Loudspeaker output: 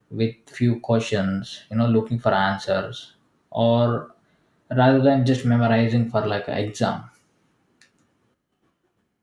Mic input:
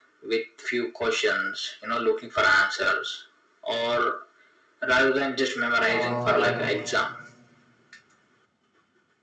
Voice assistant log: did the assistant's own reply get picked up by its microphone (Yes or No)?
Yes